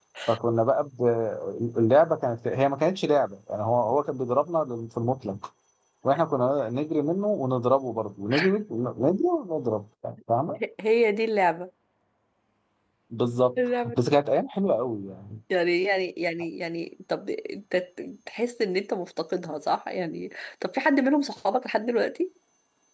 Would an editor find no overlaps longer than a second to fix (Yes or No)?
Yes